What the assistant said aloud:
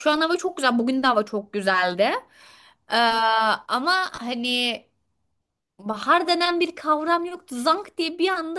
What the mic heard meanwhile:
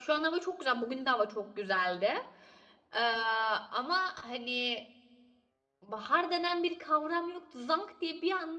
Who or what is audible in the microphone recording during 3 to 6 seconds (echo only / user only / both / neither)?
echo only